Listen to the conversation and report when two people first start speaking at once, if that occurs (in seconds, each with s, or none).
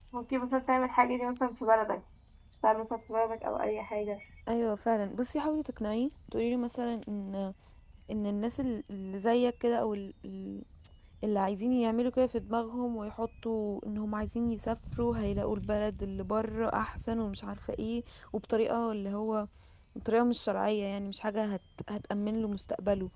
none